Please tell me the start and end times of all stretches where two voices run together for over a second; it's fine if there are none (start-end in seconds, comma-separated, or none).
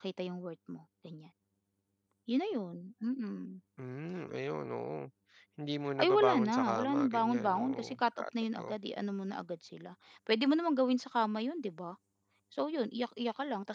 6.0-7.8